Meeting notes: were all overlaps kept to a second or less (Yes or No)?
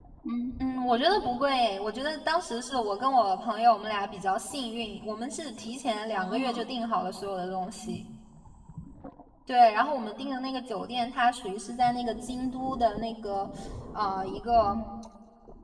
Yes